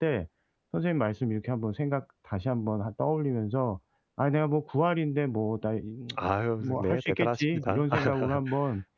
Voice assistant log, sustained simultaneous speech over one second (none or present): present